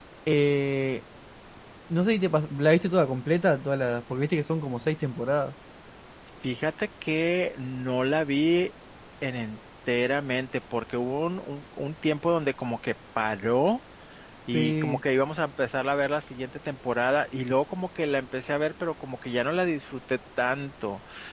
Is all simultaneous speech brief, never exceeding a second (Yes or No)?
Yes